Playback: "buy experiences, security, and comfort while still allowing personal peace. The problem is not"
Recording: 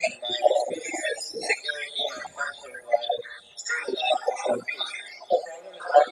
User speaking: No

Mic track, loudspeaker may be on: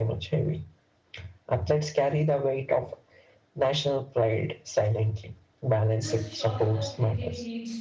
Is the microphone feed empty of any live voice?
No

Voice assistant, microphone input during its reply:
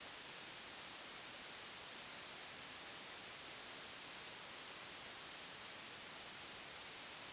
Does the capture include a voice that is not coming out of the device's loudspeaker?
No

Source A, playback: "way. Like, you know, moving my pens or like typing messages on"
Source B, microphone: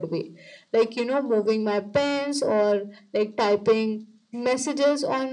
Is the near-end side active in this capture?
No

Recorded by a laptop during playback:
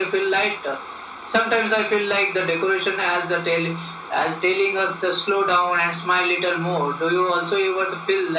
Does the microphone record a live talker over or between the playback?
No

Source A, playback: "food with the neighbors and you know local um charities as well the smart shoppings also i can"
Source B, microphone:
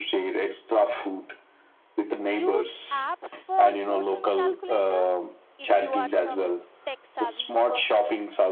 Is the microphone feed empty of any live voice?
No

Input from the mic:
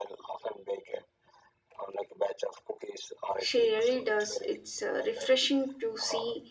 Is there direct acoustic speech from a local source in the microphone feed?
Yes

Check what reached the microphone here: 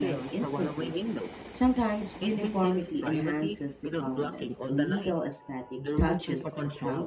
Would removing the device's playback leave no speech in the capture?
No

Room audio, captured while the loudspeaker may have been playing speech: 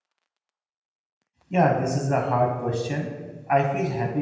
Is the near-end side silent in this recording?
No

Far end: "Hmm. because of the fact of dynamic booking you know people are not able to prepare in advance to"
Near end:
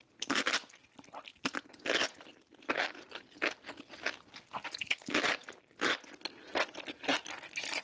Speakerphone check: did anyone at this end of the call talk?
No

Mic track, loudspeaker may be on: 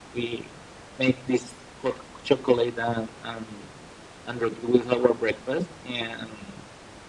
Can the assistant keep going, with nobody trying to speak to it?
Yes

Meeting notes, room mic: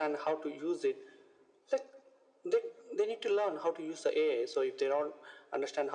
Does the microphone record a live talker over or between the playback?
No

